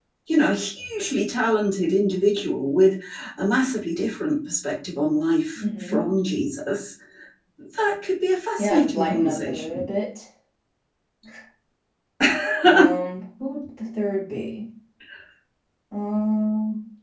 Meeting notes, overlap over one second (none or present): present